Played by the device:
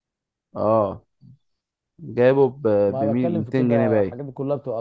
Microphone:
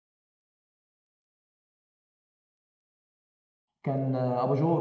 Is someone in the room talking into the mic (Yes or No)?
Yes